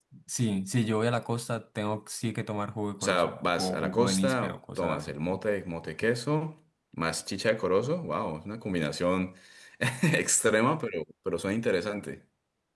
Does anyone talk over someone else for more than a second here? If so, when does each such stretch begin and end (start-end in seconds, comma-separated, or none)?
3.0-5.2